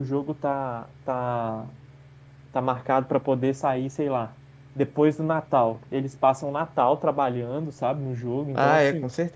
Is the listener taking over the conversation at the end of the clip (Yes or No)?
Yes